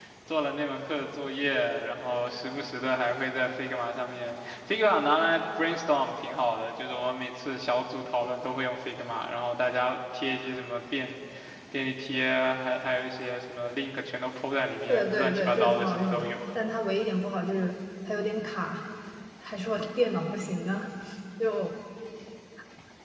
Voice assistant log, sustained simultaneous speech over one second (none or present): present